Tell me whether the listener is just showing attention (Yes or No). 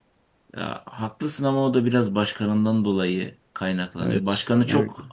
Yes